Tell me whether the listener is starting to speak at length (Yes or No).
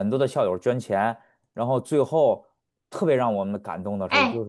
Yes